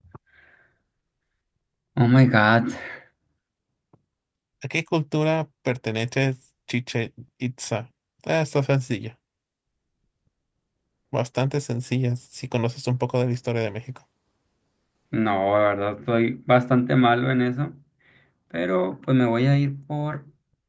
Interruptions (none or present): none